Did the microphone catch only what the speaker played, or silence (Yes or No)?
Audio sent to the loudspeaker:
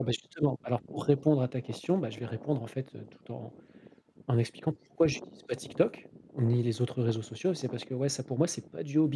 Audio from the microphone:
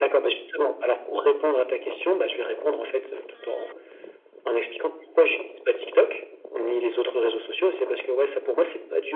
Yes